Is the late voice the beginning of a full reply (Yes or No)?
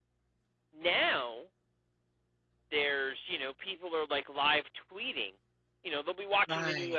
No